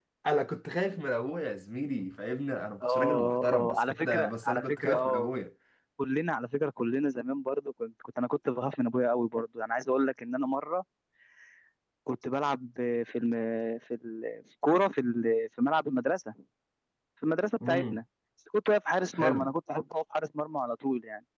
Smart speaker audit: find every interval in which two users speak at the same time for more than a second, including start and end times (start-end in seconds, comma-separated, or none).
2.8-5.3